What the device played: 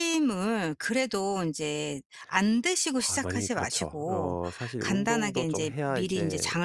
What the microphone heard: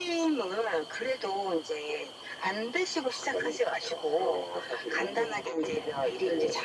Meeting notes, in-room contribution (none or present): none